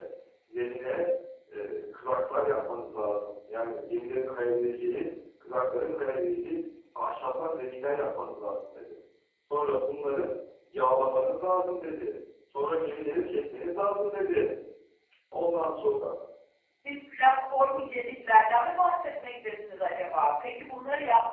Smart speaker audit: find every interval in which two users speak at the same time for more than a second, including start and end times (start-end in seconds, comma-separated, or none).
none